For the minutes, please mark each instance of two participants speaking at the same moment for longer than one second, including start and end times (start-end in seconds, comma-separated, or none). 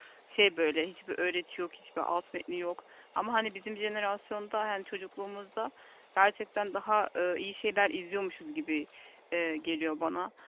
none